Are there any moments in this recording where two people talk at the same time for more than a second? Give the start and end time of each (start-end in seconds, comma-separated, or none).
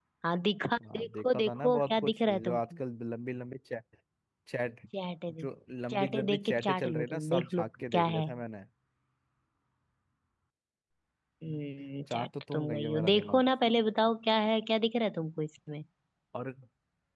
0.9-2.8, 5.9-8.2, 12.1-13.4